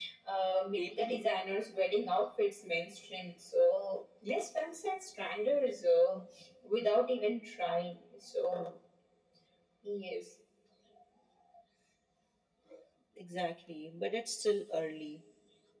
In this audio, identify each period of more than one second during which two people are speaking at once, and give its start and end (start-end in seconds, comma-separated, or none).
none